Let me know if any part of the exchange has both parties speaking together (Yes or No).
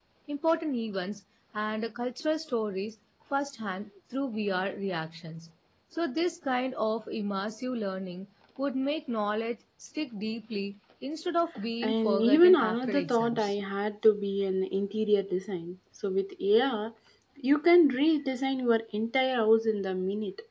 Yes